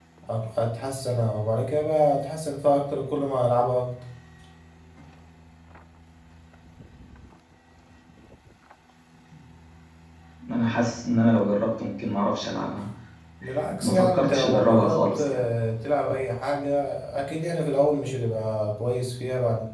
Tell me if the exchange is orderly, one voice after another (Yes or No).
No